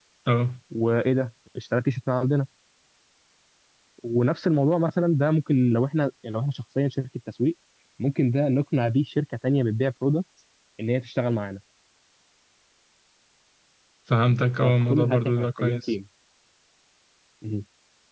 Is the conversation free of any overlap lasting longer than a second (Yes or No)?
No